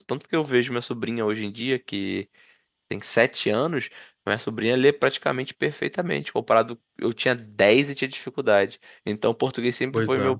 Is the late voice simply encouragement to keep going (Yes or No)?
Yes